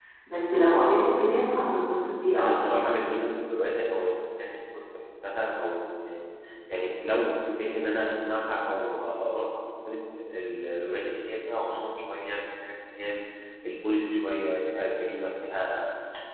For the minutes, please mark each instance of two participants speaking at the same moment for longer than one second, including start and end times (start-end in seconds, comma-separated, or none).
none